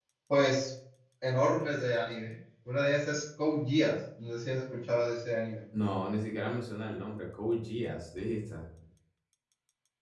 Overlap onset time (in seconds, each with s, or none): none